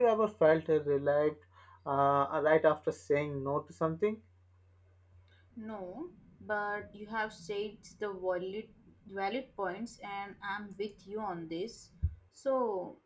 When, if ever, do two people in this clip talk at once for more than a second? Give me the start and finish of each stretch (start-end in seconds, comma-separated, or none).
none